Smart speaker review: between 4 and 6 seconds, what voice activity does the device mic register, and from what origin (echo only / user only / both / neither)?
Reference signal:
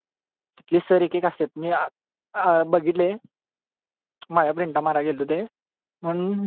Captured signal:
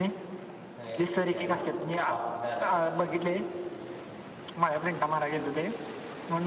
echo only